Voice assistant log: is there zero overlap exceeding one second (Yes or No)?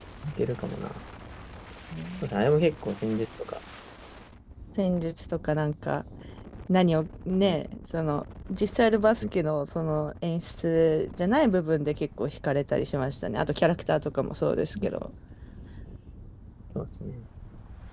Yes